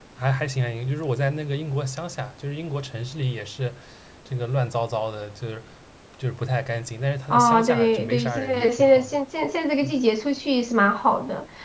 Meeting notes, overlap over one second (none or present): present